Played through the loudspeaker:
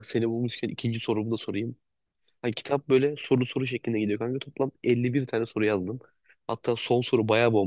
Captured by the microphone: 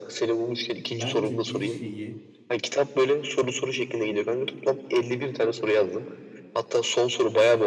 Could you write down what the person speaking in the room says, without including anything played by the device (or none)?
Bence bir şeyi